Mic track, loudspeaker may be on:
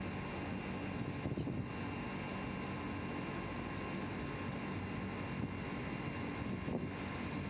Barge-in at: none

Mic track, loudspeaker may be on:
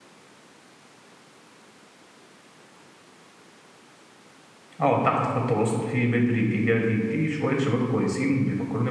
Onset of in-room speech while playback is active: 4.8 s

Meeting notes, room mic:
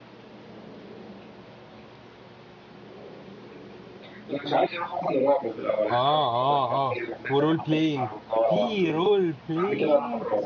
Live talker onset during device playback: 5.9 s

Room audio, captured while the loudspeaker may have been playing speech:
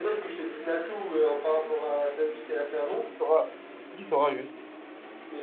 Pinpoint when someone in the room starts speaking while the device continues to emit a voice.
2.8 s

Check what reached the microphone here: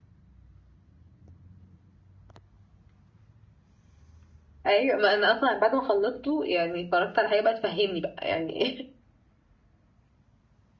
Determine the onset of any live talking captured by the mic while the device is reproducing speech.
4.7 s

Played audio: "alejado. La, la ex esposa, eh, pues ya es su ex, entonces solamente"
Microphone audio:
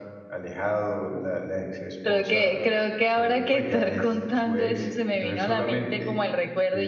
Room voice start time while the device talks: 2.0 s

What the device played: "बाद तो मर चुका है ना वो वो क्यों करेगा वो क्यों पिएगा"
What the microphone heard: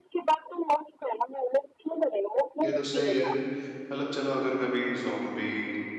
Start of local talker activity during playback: 2.6 s

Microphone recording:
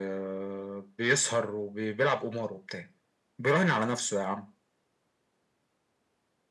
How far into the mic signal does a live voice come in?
none

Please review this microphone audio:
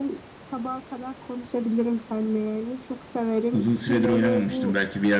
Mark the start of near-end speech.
3.5 s

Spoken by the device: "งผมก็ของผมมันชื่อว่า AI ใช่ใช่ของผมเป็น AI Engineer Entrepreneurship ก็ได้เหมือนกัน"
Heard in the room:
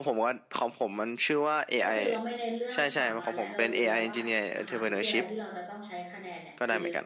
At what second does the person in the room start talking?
1.8 s

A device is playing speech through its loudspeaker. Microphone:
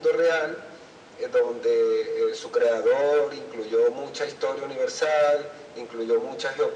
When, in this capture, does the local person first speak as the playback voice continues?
none

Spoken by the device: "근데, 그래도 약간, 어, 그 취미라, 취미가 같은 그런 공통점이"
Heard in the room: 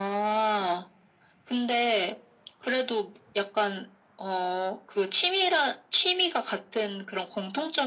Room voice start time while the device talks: none

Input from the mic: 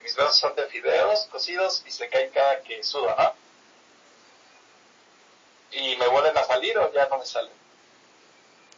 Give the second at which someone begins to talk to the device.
none

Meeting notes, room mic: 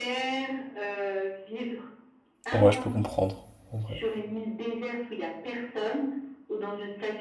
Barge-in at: 2.5 s

